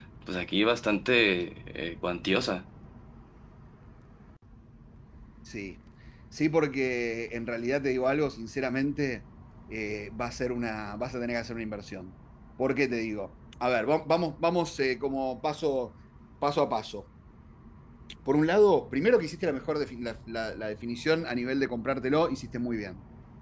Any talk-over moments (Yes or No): No